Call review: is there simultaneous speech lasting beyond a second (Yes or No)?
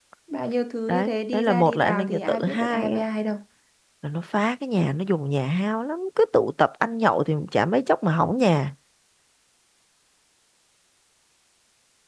Yes